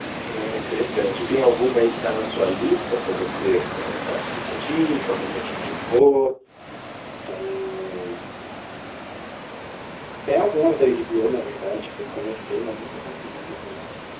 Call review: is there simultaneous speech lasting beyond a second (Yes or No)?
No